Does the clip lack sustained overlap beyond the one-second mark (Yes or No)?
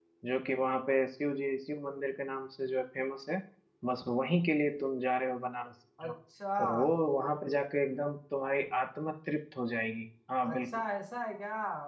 Yes